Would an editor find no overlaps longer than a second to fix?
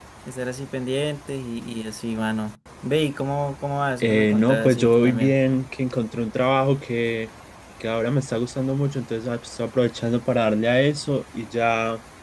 No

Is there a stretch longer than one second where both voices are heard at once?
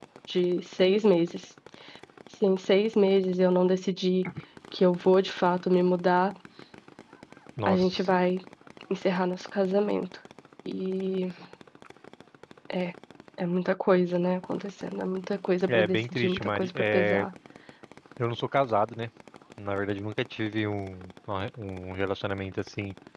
Yes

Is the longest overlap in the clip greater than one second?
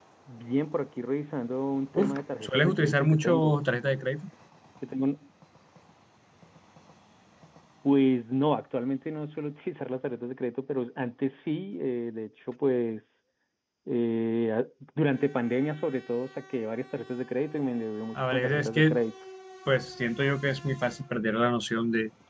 Yes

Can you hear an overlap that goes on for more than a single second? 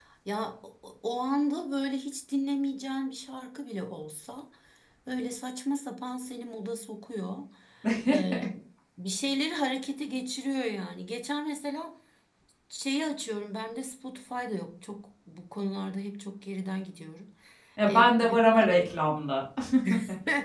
No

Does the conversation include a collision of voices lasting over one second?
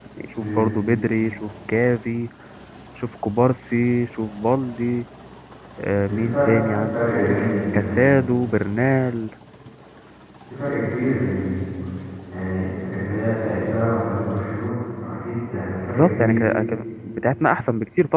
Yes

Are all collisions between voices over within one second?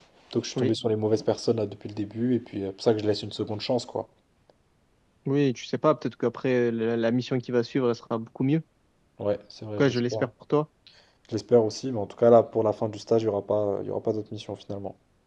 Yes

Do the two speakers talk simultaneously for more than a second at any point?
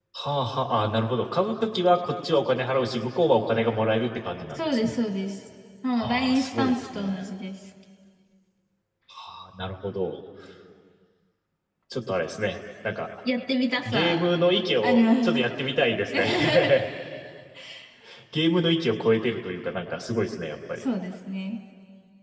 Yes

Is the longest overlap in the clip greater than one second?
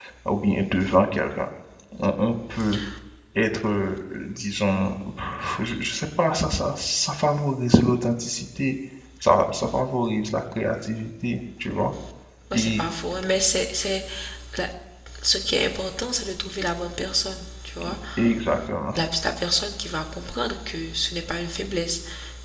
No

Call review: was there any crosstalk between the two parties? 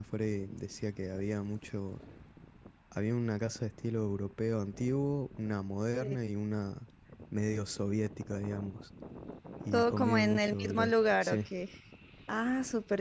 Yes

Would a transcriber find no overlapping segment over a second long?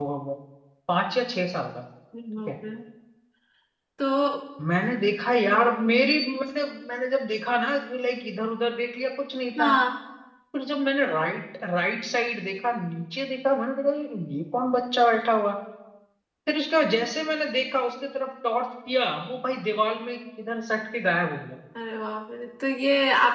Yes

